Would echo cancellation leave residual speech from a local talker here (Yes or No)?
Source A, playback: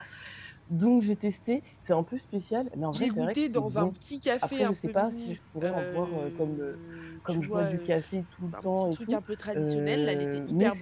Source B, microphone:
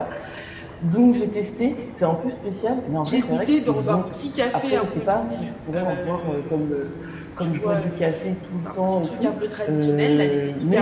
No